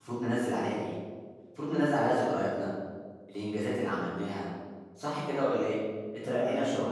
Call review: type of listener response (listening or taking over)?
listening